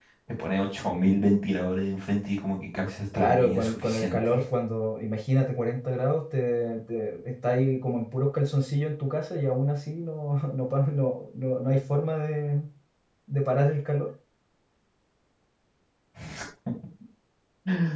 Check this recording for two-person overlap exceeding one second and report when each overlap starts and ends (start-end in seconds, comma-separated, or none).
3.1-4.4